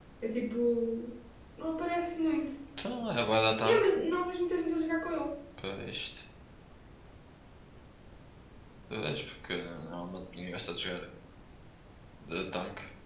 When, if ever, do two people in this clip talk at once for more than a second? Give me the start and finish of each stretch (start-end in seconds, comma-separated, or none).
none